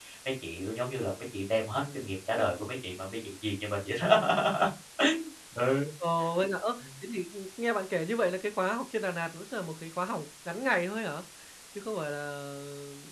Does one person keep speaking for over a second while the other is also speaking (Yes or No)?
No